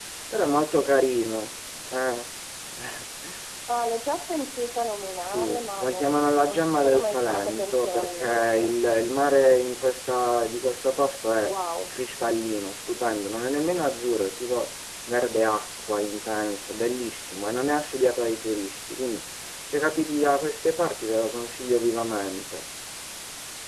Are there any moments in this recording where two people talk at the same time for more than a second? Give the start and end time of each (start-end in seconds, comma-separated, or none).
5.1-8.8